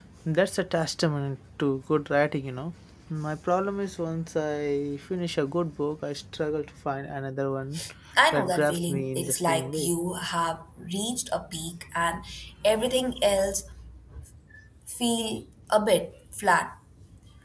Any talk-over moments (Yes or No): Yes